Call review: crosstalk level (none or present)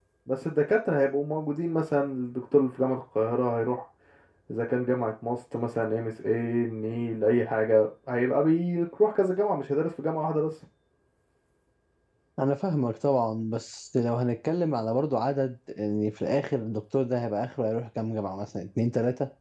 none